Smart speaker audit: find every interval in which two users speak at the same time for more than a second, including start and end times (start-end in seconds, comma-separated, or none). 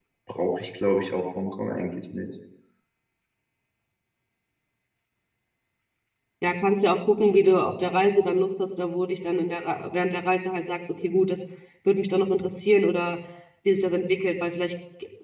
none